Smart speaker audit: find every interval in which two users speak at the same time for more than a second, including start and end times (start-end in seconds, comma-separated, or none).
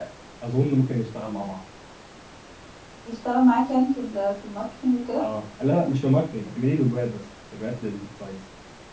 none